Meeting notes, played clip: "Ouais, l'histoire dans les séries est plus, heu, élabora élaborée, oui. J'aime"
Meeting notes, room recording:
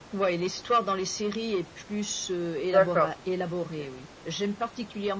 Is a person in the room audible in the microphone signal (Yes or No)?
Yes